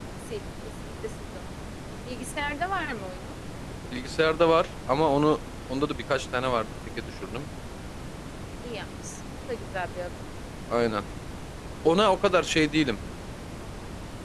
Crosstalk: none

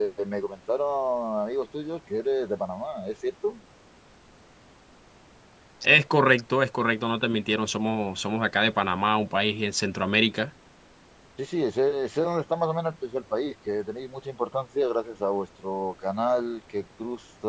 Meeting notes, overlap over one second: none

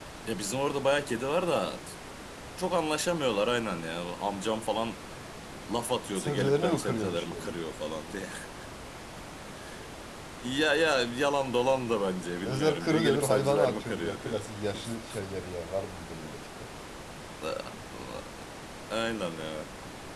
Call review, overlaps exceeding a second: present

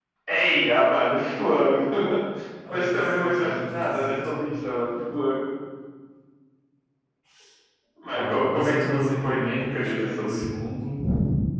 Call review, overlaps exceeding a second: present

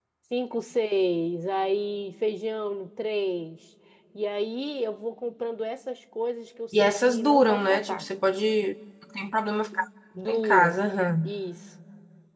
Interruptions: present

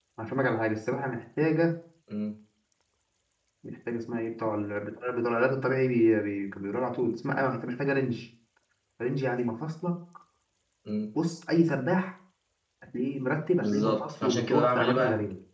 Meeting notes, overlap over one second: present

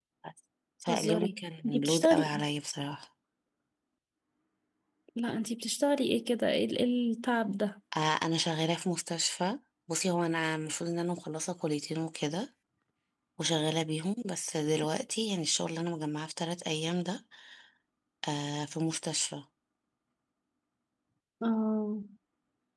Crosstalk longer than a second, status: present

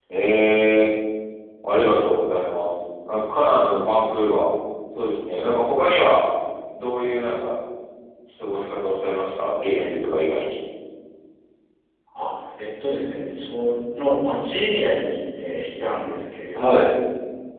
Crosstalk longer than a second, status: none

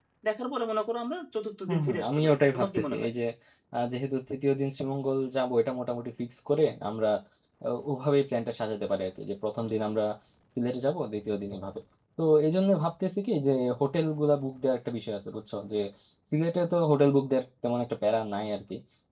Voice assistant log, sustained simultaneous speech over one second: present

